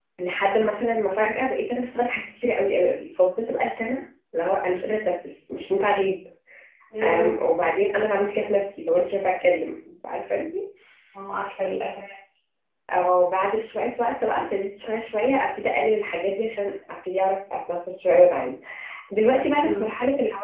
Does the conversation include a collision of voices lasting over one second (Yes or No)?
No